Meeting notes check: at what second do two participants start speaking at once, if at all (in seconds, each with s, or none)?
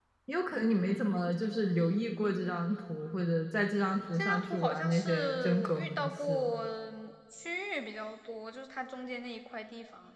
4.2 s